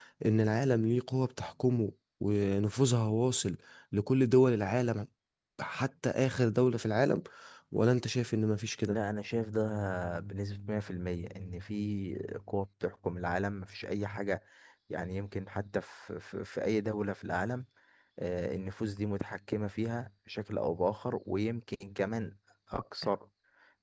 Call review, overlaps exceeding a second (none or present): none